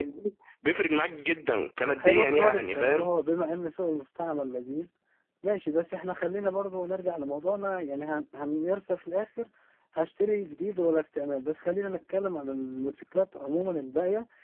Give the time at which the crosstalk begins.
2 s

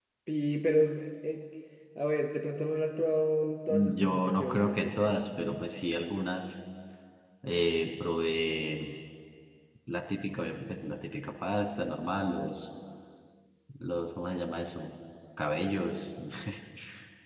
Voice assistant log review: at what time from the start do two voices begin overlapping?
4 s

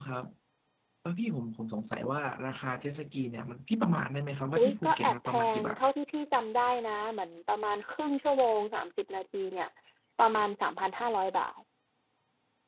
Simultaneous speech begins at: 5 s

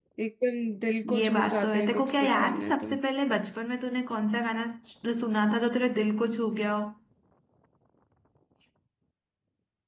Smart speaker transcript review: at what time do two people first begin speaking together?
1 s

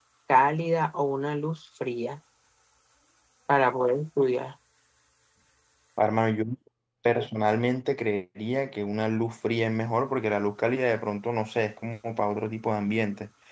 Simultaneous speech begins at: none

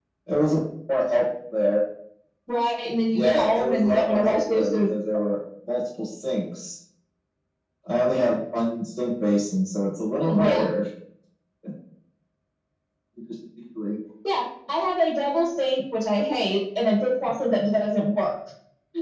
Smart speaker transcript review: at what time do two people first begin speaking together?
3 s

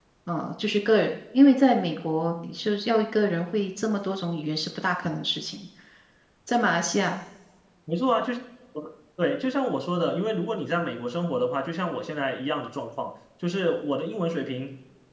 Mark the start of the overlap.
none

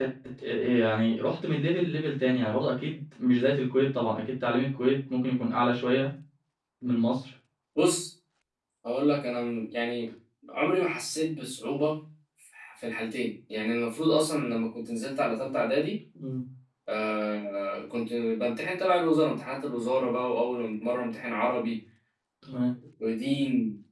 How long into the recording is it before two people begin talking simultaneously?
none

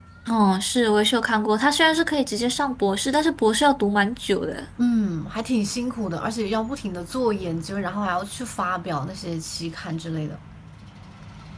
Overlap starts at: none

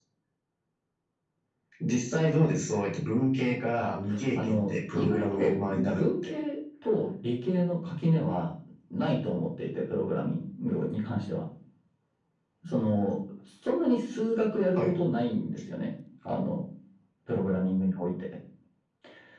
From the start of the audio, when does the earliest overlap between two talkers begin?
4 s

